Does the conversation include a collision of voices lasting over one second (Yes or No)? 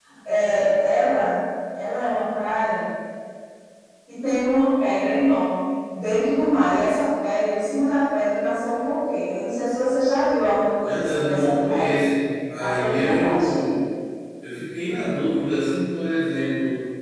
Yes